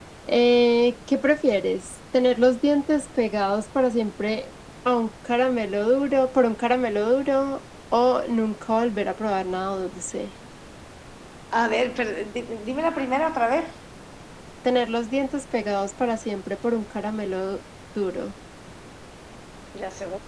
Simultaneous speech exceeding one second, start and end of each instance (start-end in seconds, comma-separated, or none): none